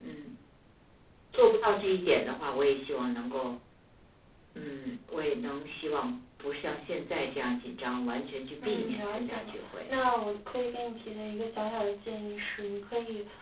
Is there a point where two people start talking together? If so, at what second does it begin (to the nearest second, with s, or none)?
9 s